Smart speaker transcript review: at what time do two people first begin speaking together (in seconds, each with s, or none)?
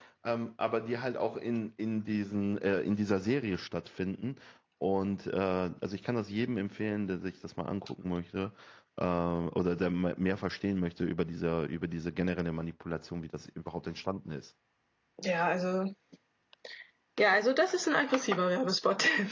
none